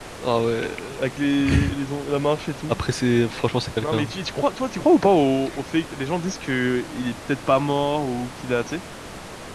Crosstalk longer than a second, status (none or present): none